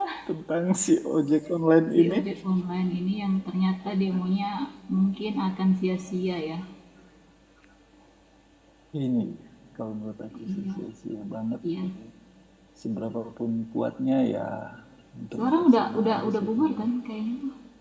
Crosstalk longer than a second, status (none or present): present